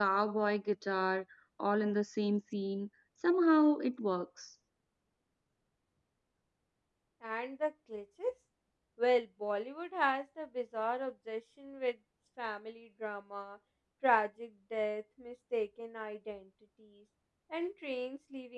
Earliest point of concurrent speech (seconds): none

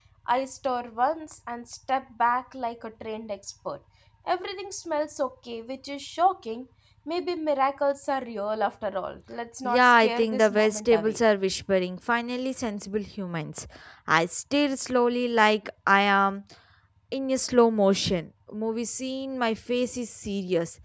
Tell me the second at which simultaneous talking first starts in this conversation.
9.6 s

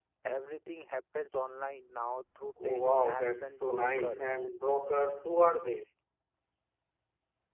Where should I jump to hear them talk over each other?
2.6 s

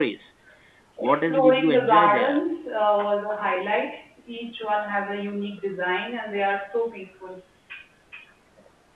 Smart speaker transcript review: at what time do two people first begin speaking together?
1.0 s

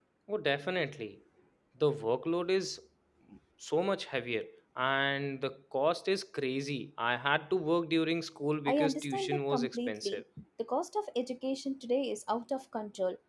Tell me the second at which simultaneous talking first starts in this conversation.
8.7 s

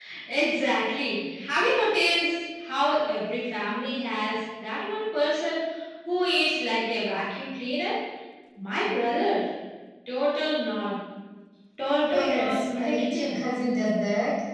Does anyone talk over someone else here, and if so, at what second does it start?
12.1 s

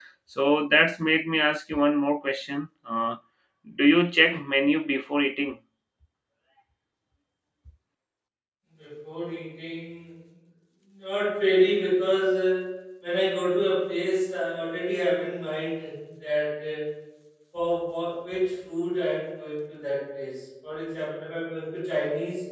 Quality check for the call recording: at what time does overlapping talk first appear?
none

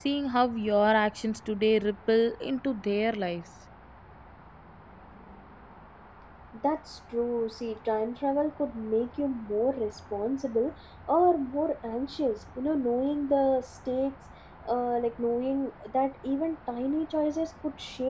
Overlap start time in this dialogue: none

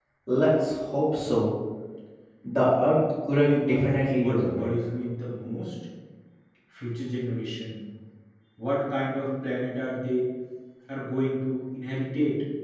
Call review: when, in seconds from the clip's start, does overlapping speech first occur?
3.4 s

